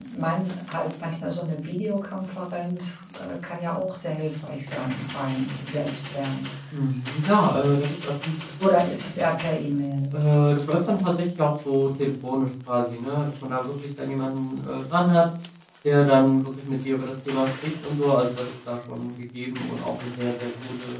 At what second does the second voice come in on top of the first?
none

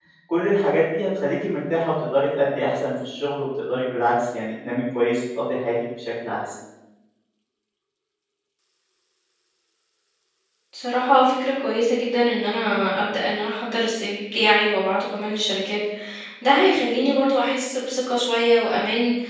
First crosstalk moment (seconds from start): none

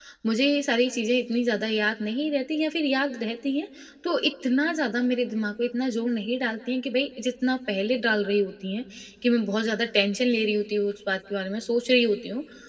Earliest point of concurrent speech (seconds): none

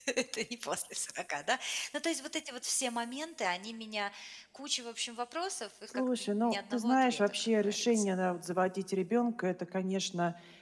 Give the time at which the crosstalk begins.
5.9 s

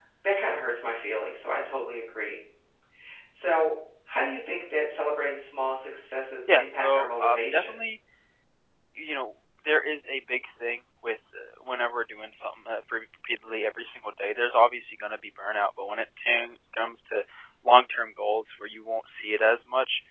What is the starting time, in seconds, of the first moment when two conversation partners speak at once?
6.5 s

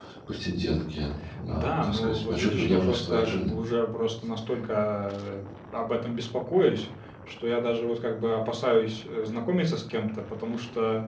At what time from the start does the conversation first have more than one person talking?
1.2 s

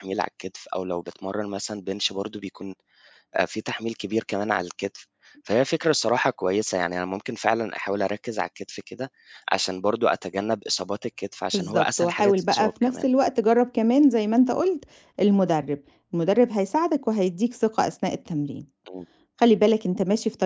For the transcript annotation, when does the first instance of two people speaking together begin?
11.5 s

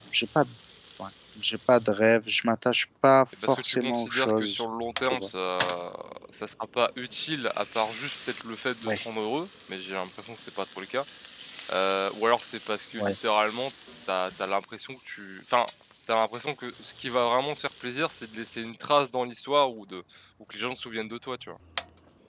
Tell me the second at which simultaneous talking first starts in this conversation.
3.4 s

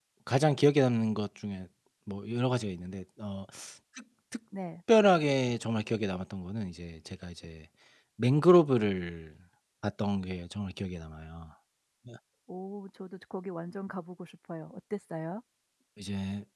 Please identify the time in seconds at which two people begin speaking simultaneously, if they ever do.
none

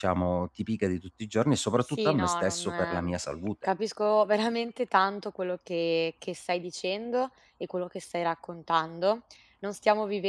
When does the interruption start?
1.9 s

